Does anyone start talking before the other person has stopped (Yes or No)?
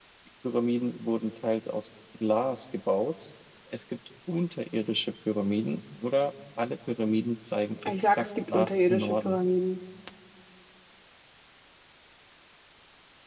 Yes